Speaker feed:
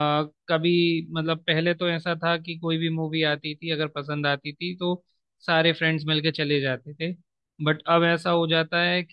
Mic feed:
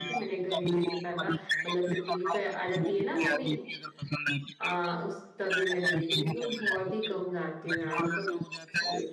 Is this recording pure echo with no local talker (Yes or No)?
No